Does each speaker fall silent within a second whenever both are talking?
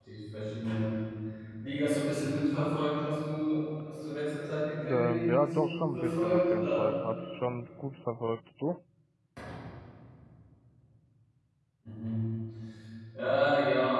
No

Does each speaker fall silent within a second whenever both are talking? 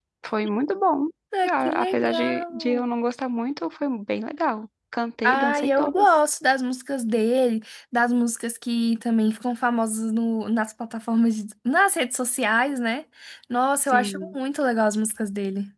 No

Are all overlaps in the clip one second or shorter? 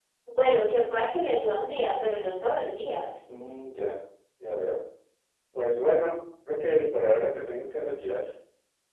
Yes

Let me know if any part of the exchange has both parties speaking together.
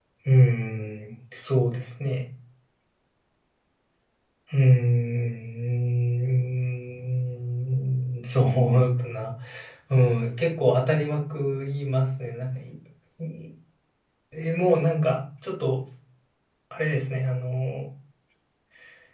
No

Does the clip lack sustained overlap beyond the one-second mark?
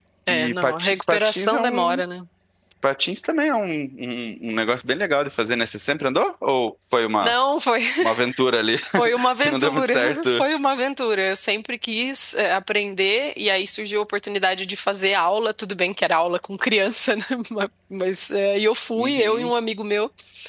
No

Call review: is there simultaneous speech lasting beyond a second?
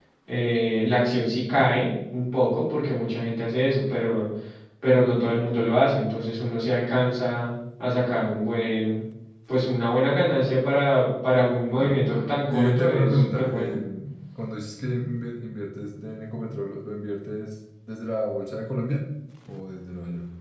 Yes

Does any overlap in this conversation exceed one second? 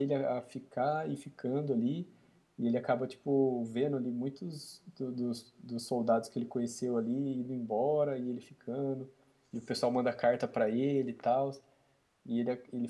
No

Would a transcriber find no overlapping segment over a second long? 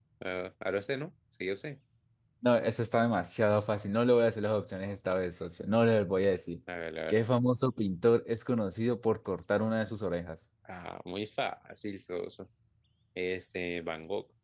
Yes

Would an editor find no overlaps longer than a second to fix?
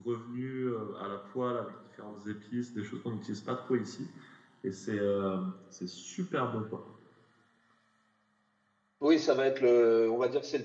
Yes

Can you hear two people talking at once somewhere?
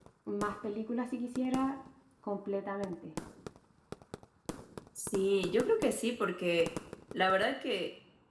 No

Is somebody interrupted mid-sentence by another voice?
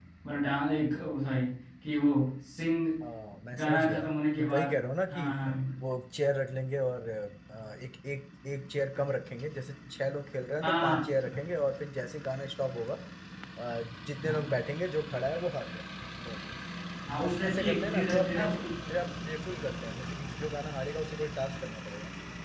Yes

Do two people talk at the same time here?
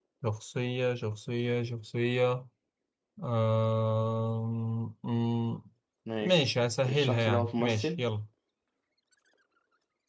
Yes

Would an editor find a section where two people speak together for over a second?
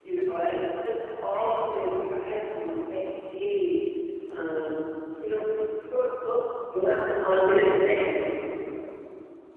No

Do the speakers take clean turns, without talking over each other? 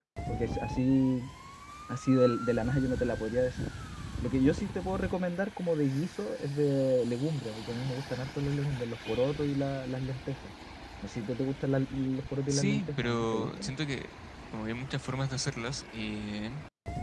No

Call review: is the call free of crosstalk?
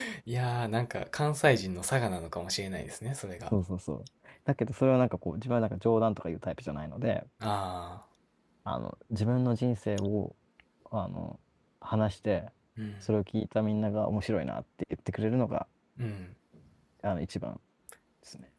Yes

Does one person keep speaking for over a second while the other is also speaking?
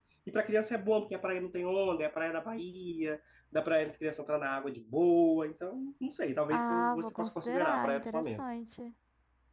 Yes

